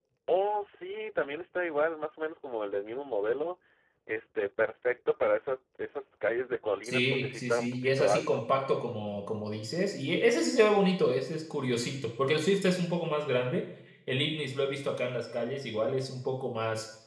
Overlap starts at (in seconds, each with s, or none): 6.8 s